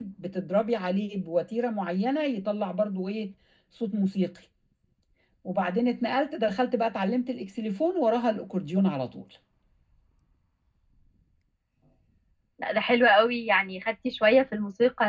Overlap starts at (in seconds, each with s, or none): none